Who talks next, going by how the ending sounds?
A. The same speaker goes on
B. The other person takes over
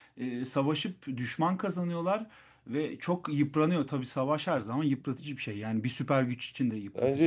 B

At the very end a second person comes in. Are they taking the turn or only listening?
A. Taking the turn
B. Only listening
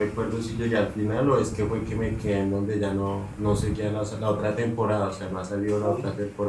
A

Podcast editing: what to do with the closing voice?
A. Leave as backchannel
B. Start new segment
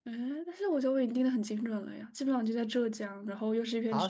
B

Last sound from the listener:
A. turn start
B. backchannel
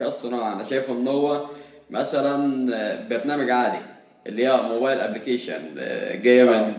B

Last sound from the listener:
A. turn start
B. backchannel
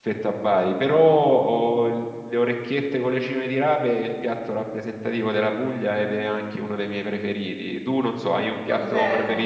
A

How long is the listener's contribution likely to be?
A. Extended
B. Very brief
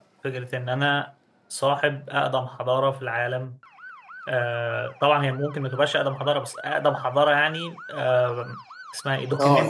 A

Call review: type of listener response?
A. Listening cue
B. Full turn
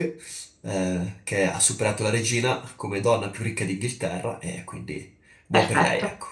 B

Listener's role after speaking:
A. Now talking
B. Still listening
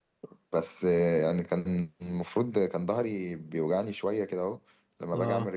B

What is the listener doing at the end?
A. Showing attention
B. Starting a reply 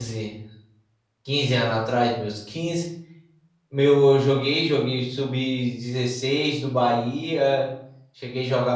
A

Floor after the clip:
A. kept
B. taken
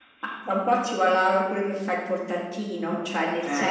A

